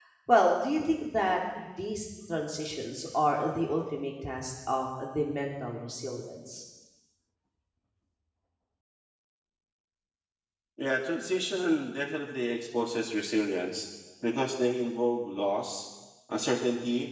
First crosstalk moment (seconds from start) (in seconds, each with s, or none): none